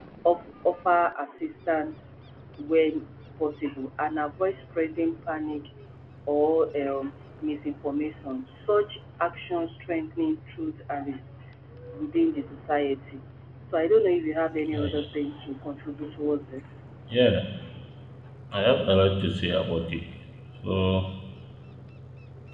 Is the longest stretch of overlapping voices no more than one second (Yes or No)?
Yes